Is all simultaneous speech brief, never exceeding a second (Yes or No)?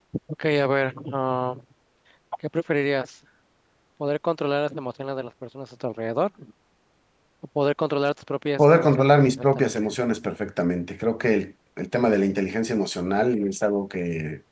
No